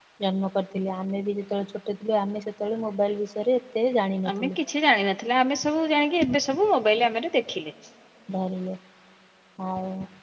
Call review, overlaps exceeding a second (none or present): none